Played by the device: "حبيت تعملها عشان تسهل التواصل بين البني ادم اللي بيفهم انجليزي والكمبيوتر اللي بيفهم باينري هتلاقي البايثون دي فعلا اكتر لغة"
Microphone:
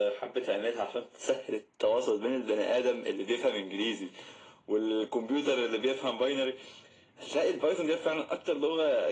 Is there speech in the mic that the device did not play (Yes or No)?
No